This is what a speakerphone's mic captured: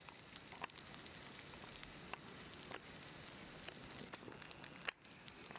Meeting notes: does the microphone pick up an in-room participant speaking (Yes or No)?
No